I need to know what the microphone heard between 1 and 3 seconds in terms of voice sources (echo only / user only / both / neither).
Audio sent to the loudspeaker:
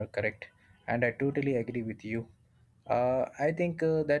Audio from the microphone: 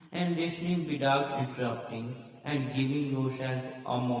user only